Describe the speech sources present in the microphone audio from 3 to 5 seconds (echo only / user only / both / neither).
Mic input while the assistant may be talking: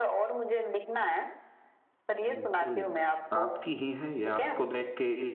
both